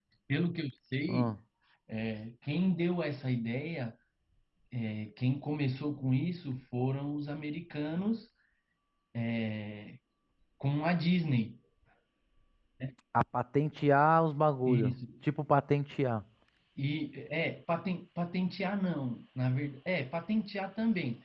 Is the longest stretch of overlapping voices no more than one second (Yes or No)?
Yes